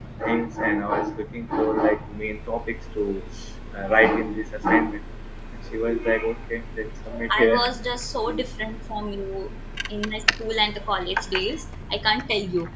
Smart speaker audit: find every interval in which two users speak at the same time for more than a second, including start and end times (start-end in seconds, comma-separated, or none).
none